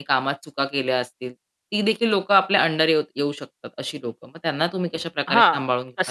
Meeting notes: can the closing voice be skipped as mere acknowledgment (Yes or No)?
No